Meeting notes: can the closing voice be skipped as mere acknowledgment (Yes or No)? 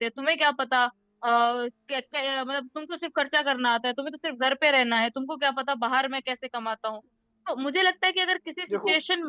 Yes